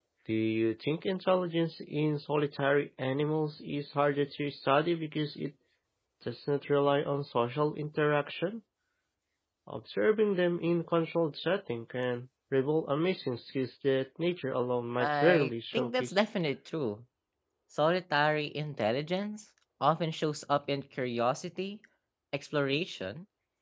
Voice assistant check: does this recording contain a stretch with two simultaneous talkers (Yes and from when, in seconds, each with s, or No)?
Yes, from 15.0 s